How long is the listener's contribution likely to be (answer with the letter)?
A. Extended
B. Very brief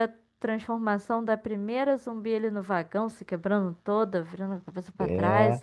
A